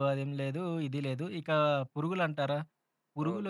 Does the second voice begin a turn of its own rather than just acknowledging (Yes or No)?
No